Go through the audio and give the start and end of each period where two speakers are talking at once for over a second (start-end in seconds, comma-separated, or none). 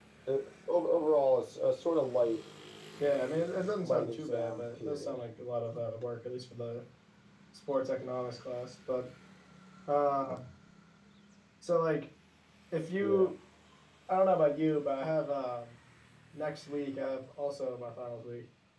3.8-5.2